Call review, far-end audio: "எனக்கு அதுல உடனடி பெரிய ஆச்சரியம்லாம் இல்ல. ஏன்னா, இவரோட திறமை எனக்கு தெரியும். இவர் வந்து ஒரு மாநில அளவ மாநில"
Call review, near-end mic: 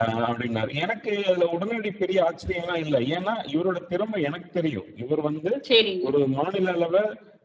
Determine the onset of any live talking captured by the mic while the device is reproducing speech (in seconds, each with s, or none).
5.7 s